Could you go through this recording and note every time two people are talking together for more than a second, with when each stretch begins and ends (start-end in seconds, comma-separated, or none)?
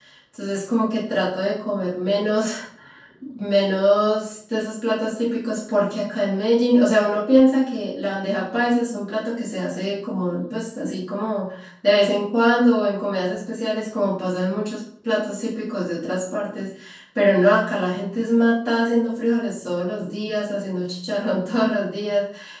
none